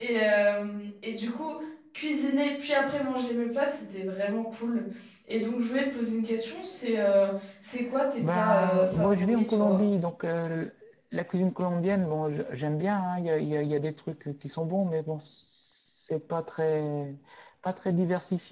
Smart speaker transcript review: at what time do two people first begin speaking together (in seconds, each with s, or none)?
8.2 s